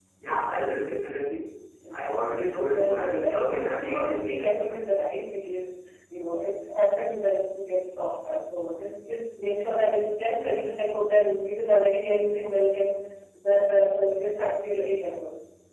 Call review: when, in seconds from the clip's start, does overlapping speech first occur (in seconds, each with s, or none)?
2.7 s